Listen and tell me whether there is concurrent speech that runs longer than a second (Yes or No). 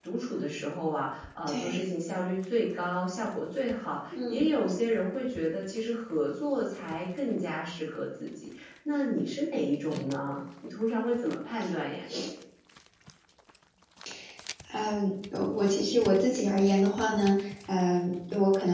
No